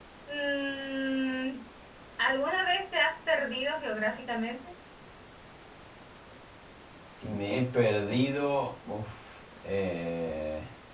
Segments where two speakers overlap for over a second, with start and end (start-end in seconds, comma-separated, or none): none